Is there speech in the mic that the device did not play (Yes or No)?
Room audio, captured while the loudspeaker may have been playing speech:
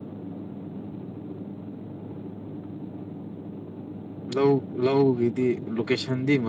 Yes